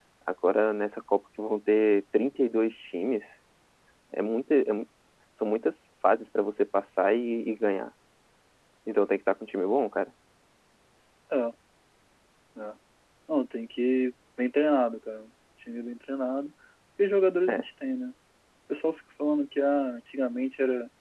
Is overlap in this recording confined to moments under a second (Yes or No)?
Yes